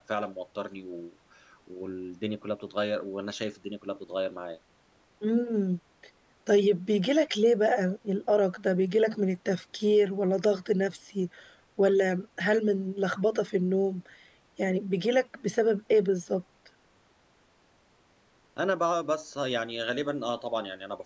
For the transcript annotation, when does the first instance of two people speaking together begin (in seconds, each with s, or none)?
none